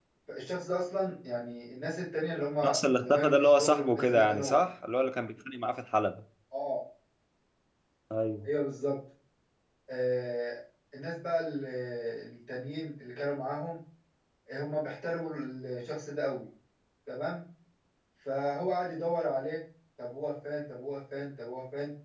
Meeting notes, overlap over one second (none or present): present